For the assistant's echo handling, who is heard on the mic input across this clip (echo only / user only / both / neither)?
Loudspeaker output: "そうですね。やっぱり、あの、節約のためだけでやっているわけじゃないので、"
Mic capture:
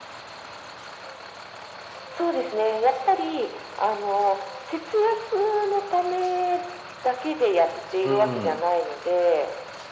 both